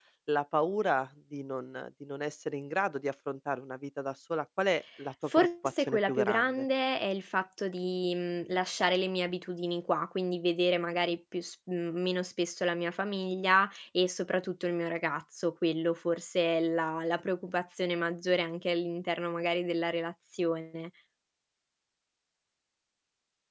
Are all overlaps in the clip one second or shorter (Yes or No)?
No